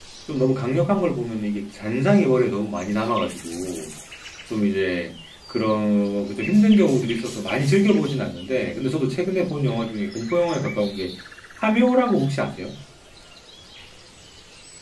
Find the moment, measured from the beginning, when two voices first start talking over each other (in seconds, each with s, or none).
none